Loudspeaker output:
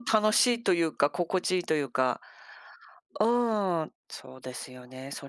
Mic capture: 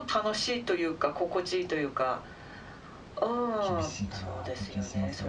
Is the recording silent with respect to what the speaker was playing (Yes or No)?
No